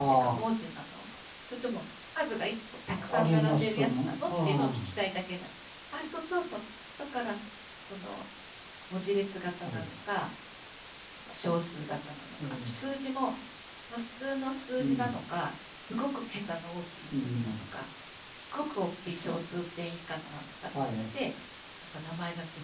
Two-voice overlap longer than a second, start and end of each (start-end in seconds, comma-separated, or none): 3.0-4.8